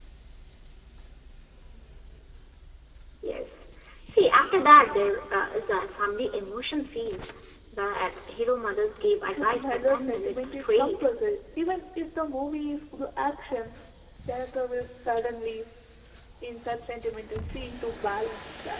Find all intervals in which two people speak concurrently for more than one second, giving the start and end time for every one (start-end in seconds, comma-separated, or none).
9.4-11.0